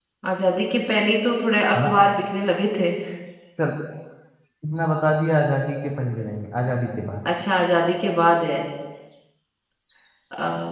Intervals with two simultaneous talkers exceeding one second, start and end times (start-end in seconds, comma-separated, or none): none